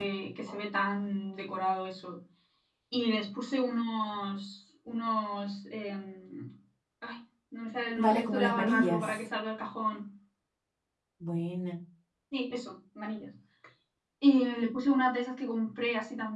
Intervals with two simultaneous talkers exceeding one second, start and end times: 8.0-9.2

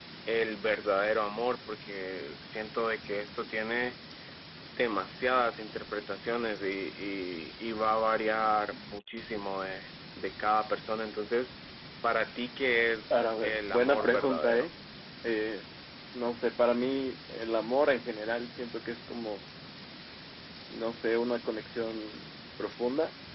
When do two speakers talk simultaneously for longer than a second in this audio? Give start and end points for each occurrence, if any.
13.1-14.7

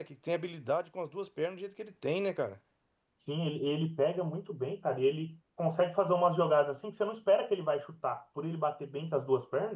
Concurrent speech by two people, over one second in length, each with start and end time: none

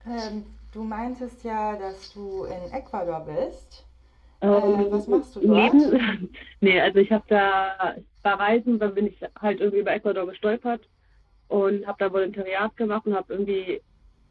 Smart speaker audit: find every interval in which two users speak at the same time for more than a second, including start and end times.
4.5-5.9

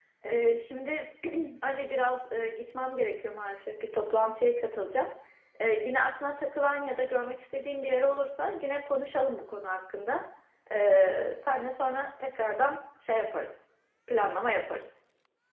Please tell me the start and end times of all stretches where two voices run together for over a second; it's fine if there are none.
none

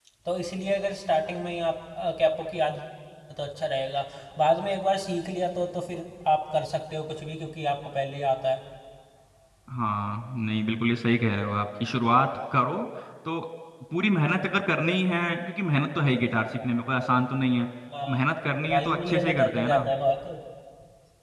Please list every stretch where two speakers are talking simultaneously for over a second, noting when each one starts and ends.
18.7-19.9

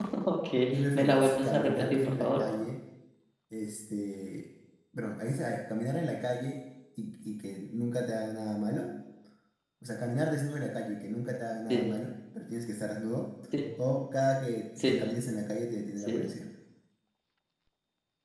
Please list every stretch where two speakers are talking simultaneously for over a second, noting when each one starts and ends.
0.9-2.4

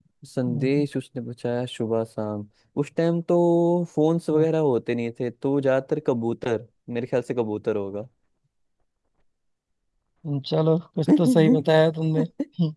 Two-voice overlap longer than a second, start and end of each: none

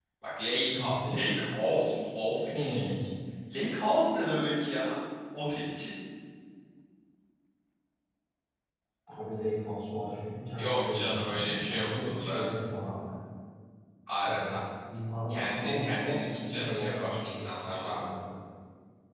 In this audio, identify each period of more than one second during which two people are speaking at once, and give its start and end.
10.6-12.4, 15.3-17.2

